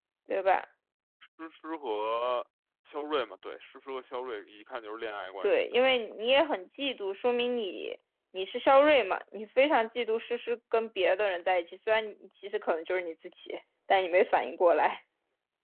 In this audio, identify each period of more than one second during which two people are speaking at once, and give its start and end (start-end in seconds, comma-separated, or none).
none